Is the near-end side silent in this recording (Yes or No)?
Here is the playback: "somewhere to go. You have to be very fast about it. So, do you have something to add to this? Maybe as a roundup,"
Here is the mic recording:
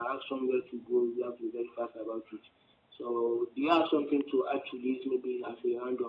Yes